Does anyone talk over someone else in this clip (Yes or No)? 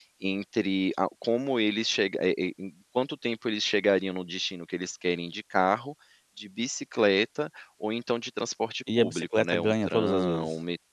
Yes